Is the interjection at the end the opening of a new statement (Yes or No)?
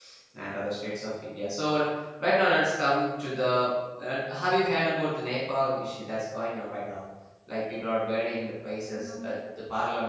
No